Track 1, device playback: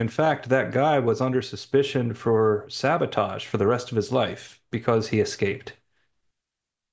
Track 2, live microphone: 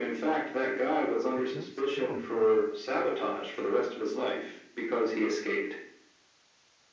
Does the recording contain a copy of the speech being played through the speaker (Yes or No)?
Yes